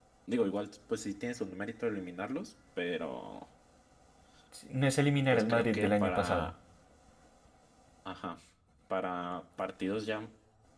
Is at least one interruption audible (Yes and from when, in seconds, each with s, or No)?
Yes, from 5.3 s